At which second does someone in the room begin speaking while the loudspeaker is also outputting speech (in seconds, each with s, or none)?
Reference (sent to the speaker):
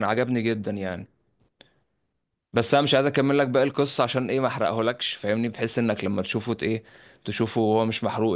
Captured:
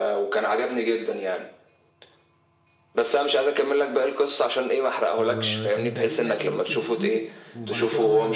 5.2 s